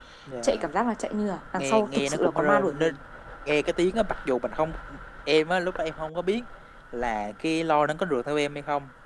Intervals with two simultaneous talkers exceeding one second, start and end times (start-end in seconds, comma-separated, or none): 1.6-2.9